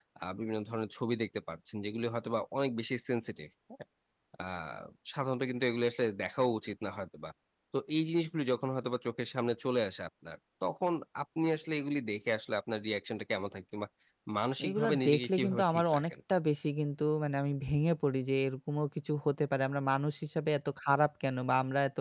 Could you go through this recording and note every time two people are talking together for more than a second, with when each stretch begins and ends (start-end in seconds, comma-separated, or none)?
14.7-16.0